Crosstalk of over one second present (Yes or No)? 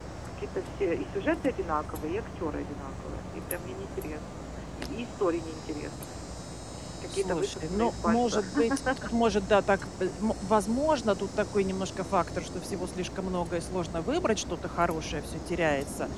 Yes